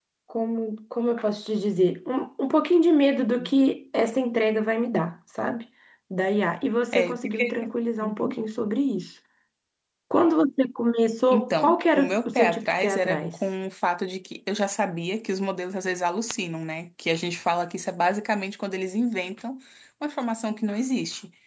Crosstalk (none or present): present